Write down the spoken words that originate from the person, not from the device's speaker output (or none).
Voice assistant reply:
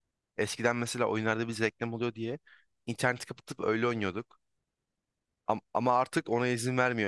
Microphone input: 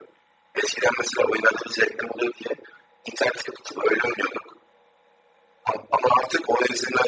none